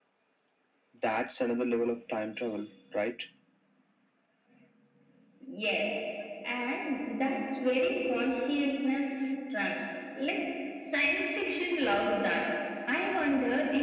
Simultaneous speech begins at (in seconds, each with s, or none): none